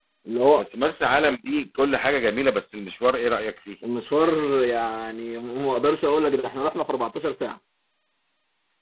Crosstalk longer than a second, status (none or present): none